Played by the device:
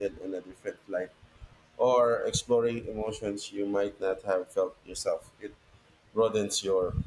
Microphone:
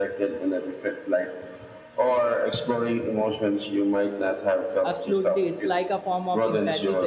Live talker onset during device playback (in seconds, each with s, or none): 4.8 s